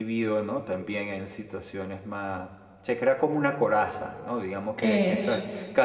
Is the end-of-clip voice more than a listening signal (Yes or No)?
No